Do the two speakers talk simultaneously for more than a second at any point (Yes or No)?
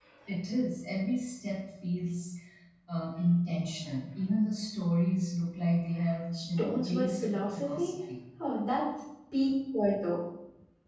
Yes